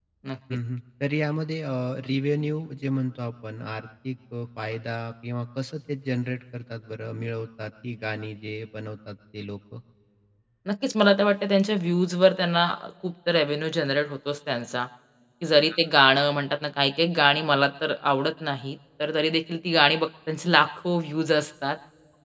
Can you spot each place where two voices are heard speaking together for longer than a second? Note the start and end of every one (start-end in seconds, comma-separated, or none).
none